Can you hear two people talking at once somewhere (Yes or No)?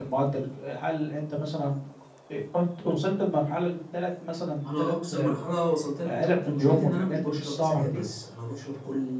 Yes